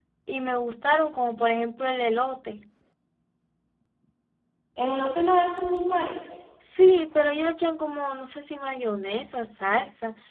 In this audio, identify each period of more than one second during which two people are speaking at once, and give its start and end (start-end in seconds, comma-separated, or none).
none